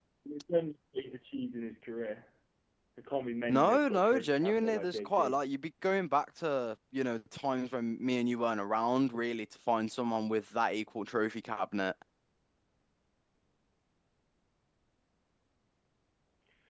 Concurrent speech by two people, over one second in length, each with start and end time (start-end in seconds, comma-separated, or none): 3.5-5.4